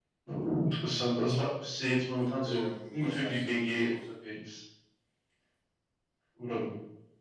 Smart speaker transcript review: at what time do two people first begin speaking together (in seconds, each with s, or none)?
2.4 s